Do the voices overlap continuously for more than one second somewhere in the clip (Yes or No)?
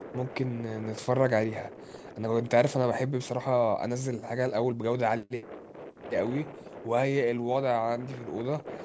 No